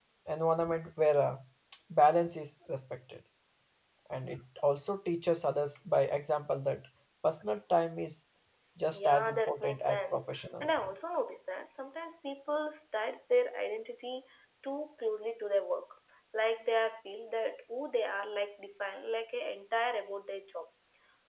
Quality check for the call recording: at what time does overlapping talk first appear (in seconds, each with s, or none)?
8.9 s